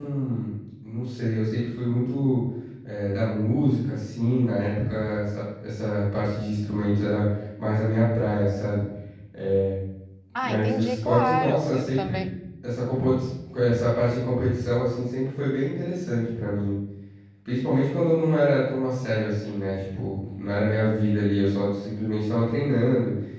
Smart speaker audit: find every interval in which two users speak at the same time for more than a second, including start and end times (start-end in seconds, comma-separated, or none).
10.4-12.2